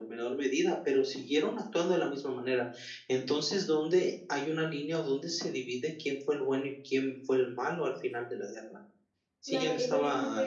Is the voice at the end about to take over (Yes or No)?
Yes